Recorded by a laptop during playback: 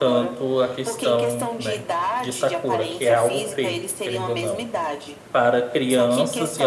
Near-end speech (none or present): present